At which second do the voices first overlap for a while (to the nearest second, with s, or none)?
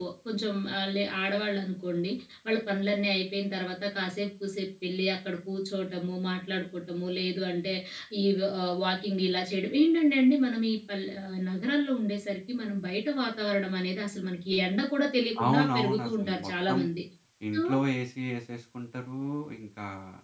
15 s